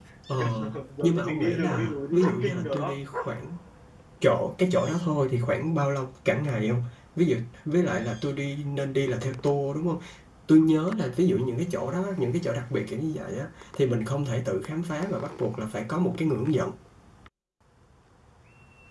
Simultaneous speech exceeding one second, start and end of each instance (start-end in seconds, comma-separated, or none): 1.0-3.0